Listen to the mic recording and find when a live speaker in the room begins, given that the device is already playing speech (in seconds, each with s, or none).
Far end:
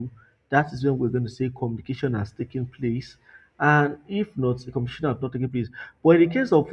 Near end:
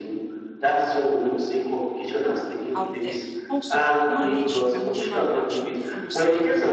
2.7 s